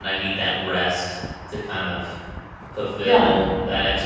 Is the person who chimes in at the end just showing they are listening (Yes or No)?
Yes